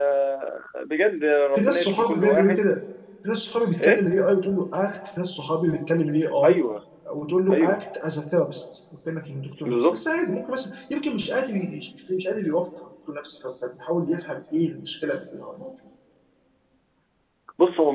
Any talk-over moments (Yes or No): Yes